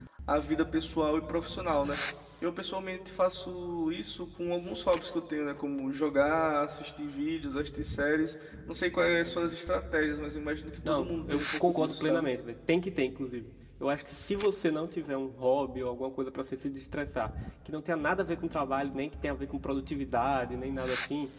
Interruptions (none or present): present